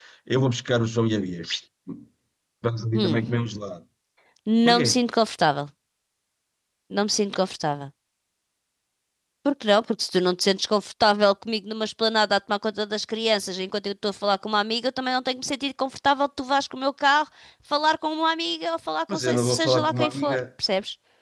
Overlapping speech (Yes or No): Yes